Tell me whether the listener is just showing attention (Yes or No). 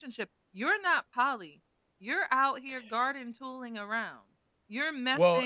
Yes